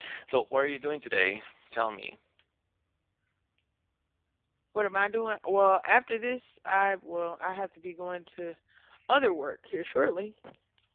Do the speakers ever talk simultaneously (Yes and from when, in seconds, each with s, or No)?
No